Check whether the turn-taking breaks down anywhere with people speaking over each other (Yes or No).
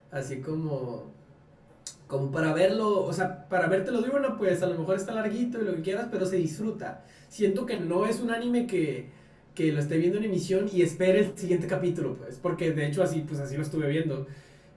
No